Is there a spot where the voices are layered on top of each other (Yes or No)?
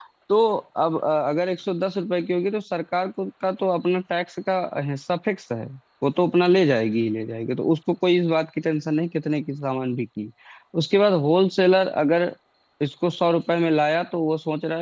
No